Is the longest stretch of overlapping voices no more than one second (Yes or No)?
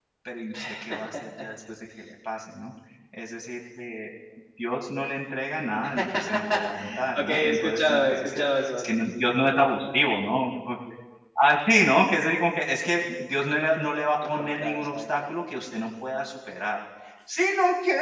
No